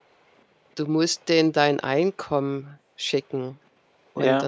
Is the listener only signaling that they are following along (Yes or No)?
Yes